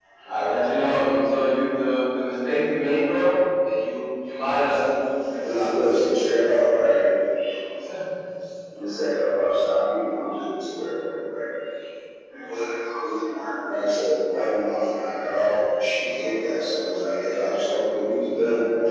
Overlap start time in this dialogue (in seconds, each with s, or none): none